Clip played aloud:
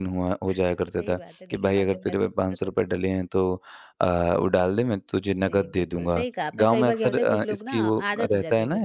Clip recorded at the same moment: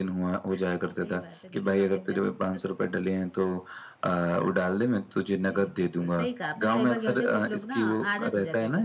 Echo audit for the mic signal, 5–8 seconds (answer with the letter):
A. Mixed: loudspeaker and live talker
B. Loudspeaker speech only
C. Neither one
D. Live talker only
B